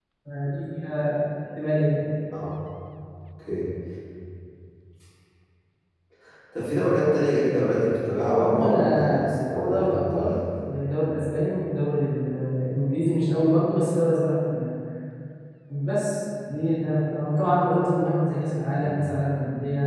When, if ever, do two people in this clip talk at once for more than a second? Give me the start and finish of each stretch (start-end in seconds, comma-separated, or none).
8.1-10.4